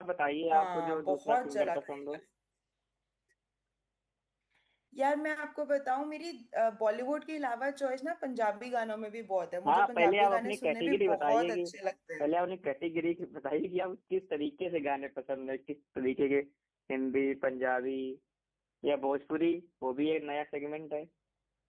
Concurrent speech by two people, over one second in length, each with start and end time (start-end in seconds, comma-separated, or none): 0.5-2.2, 9.7-11.6